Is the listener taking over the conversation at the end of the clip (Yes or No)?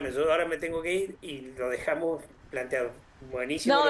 Yes